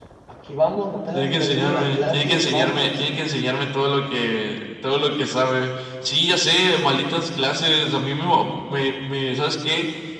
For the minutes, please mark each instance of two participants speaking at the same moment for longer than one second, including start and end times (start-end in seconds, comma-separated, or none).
1.1-3.0